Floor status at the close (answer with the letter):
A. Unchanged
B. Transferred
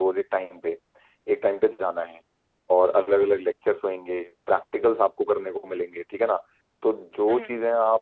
A